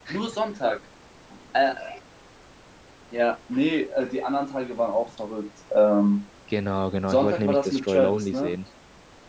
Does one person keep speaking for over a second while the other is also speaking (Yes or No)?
Yes